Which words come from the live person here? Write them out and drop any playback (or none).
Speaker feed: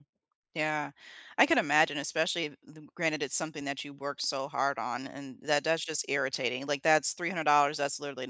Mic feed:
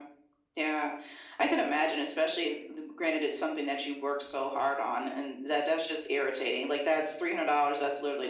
none